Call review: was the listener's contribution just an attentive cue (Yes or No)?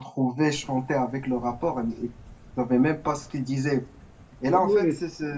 Yes